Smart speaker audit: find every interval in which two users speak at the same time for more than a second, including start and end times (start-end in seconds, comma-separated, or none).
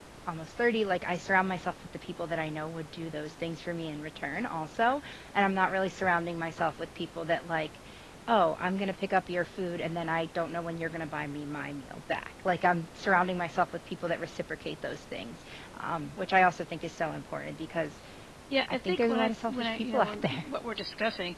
18.7-20.4